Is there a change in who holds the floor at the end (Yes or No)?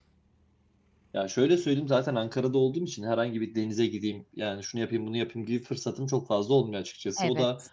No